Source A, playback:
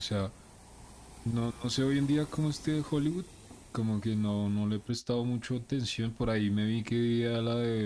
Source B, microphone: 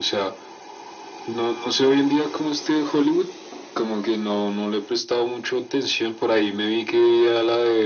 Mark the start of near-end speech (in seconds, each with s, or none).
none